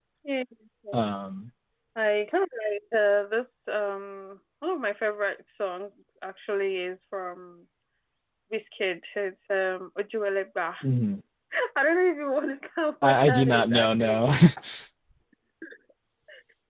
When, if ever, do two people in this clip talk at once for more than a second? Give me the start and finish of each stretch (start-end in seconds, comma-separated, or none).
13.0-14.3